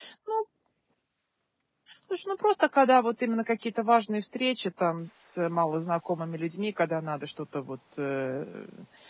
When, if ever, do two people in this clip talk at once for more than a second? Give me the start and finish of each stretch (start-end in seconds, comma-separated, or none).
none